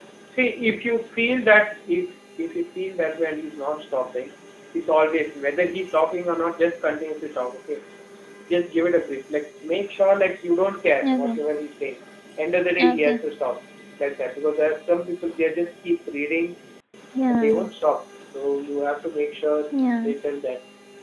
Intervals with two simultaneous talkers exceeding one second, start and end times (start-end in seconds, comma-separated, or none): none